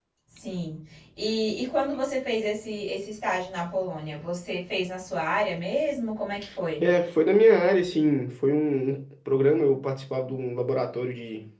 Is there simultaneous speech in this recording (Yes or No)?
No